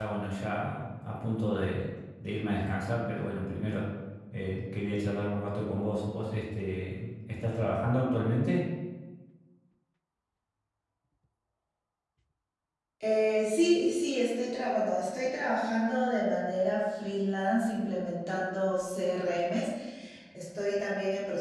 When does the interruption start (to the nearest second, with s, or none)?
none